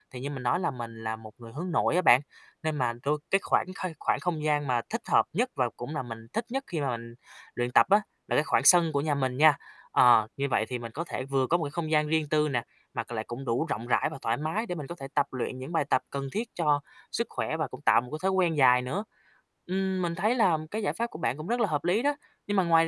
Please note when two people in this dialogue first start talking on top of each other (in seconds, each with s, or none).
none